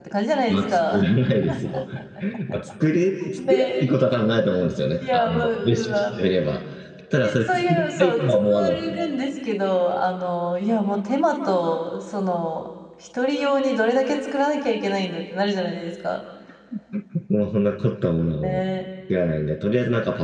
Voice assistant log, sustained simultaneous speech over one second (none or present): present